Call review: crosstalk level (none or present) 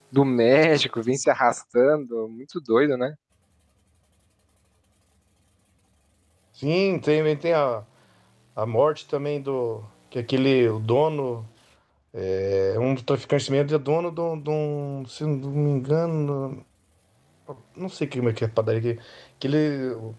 none